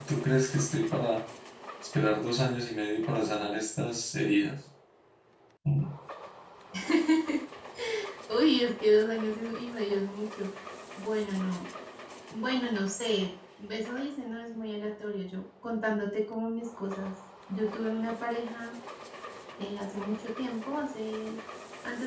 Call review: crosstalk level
none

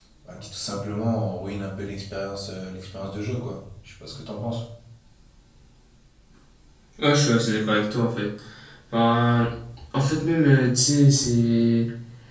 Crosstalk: none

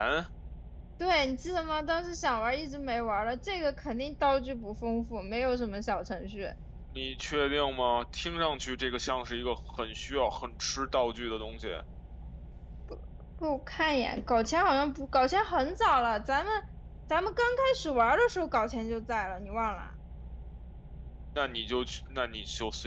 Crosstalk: none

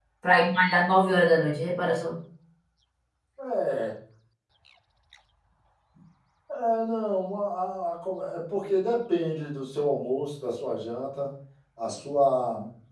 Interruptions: none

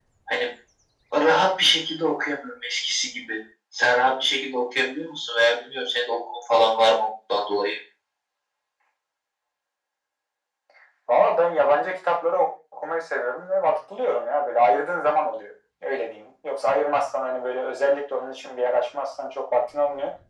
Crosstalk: none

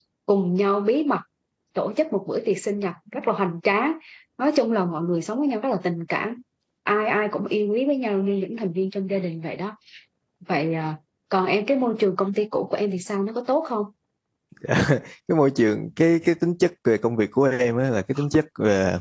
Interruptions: none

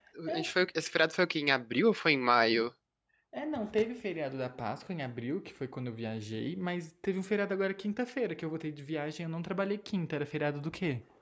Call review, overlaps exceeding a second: none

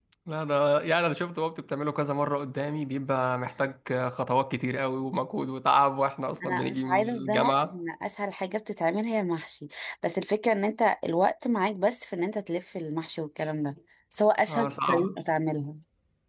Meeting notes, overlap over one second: present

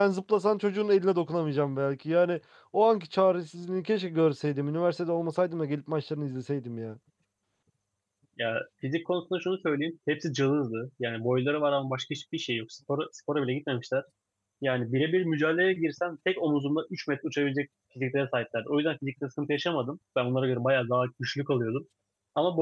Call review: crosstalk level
none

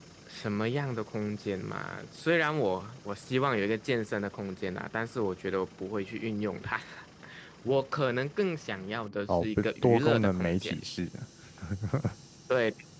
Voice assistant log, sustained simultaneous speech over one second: present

